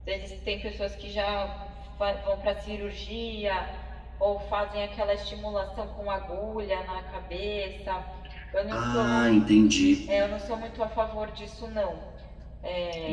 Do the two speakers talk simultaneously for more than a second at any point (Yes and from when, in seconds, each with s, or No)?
No